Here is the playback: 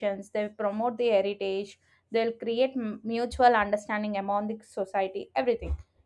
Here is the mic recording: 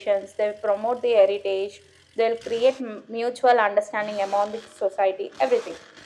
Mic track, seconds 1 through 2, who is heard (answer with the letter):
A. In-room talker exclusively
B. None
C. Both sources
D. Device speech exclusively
D